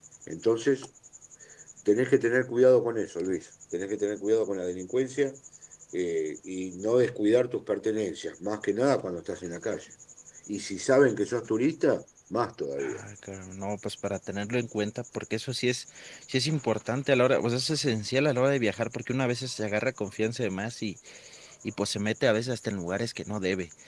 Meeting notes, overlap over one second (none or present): none